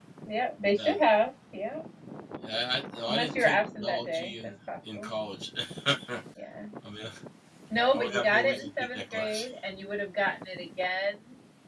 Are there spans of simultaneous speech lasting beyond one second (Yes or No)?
Yes